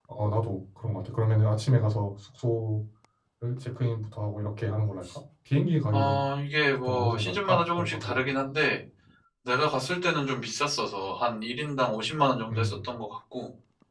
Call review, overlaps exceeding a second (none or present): present